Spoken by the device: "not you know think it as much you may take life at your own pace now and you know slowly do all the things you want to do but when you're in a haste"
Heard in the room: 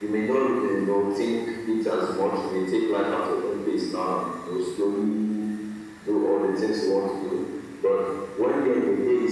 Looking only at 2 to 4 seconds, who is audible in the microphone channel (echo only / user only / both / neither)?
echo only